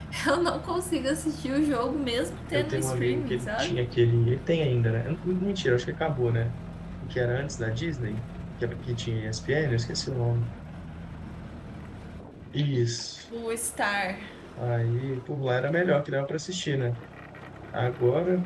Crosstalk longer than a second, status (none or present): present